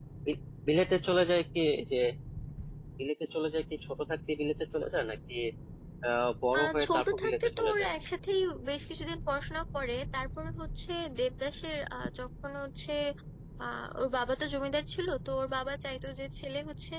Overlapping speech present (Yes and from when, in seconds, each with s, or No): Yes, from 6.6 s